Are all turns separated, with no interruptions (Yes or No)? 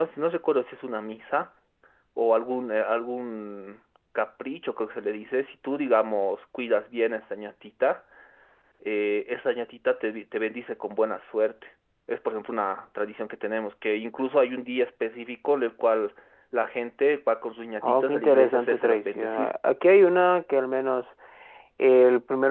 No